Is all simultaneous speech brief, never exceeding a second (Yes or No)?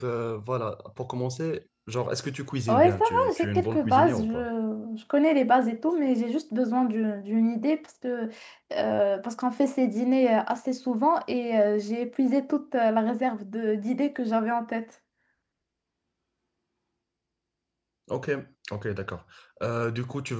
No